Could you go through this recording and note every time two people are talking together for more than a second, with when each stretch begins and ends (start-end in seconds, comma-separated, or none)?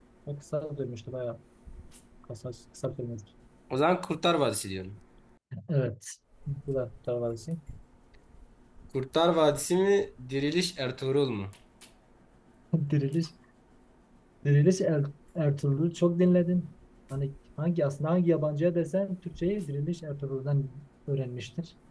none